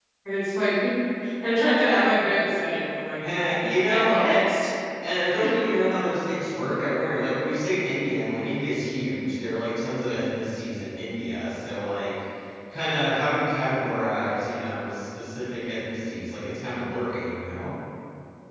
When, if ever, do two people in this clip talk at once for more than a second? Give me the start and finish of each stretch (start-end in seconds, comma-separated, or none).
3.2-4.5